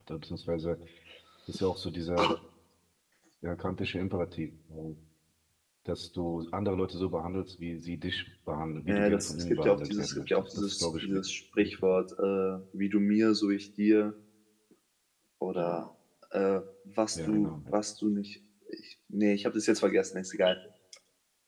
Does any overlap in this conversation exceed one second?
Yes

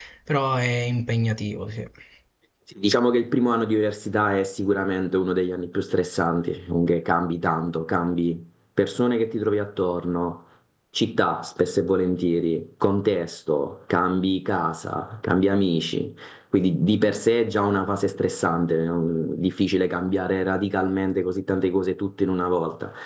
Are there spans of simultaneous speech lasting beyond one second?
No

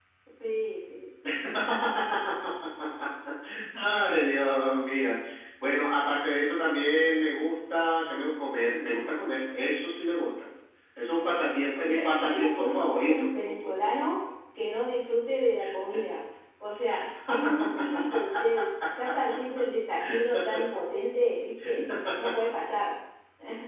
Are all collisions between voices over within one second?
No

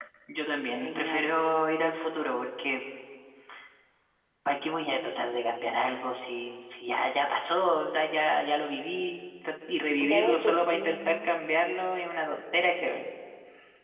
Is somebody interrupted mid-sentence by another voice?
Yes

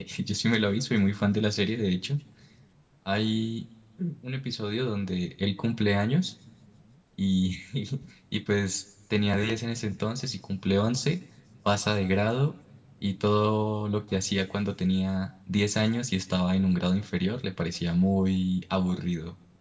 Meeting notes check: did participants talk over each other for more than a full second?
No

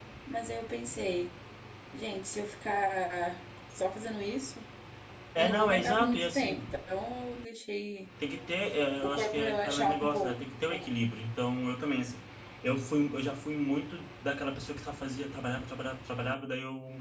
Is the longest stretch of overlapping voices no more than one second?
No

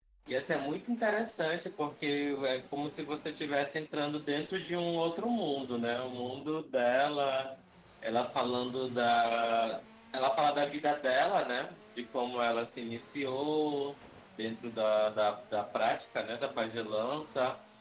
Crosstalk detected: No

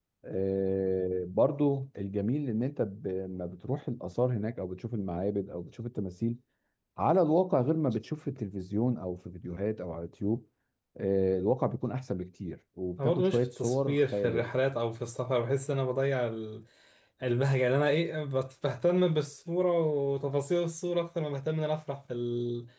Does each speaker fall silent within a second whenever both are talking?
No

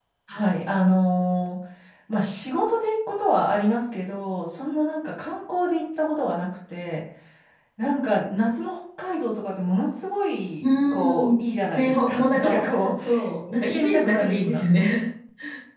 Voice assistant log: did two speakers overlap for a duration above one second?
Yes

